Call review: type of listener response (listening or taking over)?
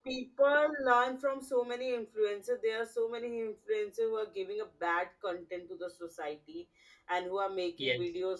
listening